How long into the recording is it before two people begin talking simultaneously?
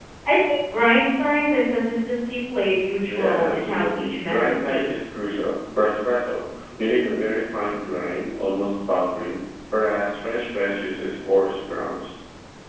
3.0 s

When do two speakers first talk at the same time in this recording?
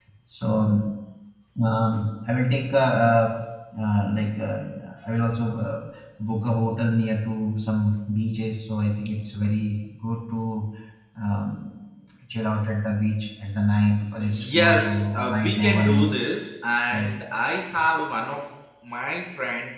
14.2 s

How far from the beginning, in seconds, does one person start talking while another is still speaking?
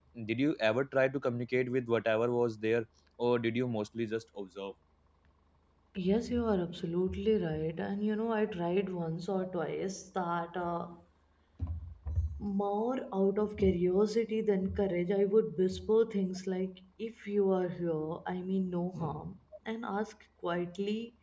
none

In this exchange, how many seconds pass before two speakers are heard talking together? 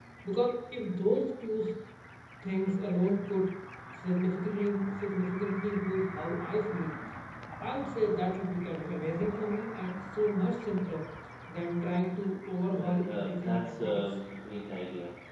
12.6 s

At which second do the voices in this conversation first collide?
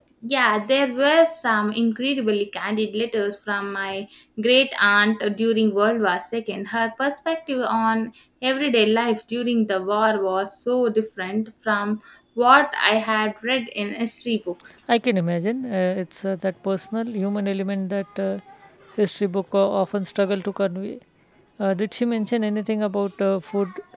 none

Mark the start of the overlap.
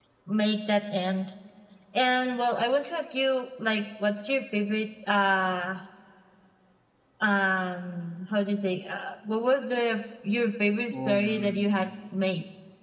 10.9 s

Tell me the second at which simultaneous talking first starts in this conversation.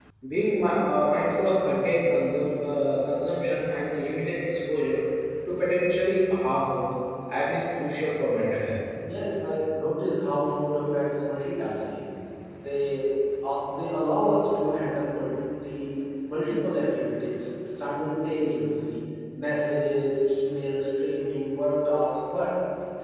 none

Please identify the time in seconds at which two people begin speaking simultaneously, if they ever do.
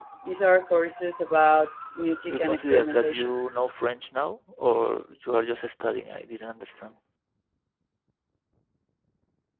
2.3 s

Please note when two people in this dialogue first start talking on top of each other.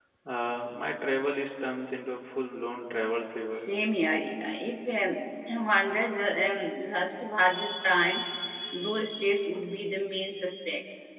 none

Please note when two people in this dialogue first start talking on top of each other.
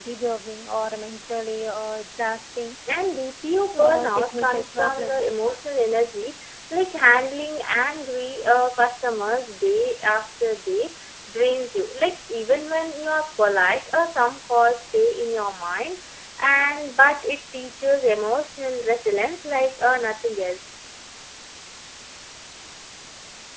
3.8 s

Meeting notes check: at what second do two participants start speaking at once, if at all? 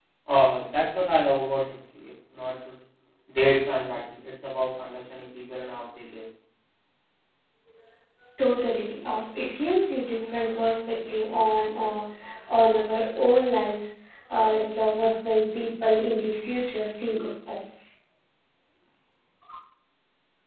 none

